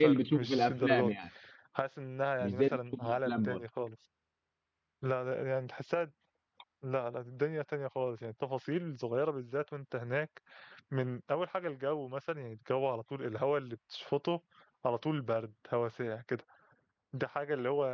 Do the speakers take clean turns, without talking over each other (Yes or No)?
No